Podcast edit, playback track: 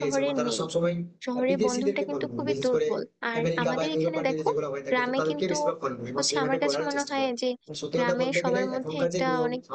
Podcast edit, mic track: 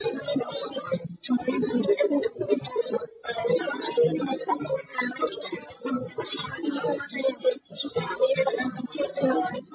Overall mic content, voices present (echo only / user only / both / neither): echo only